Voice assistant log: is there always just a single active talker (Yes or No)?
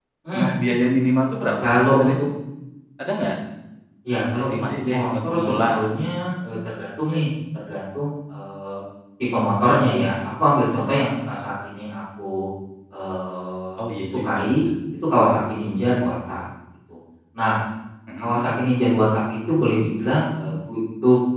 No